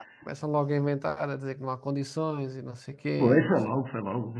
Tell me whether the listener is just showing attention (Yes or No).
No